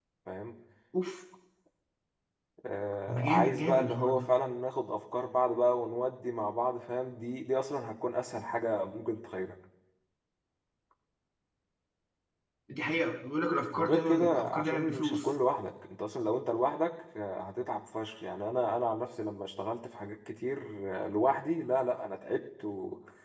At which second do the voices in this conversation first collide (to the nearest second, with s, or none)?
3 s